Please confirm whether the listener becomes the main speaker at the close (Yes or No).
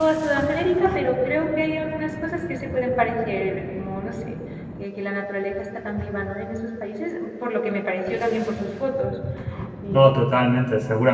Yes